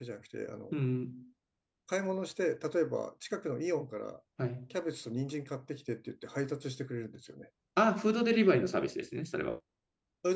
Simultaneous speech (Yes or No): No